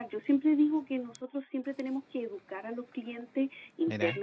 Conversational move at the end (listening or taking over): listening